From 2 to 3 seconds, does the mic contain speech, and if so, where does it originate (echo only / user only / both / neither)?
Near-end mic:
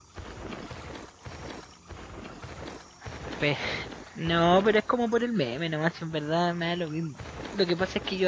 neither